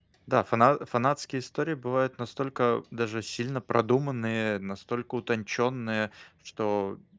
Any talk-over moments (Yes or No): No